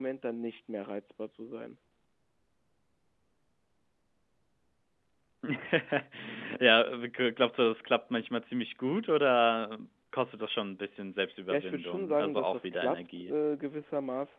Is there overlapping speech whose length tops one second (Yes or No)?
Yes